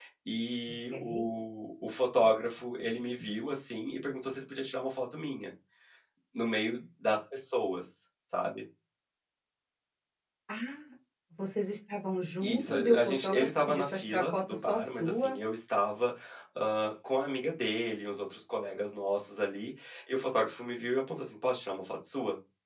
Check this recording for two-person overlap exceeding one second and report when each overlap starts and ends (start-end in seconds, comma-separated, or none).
12.4-15.3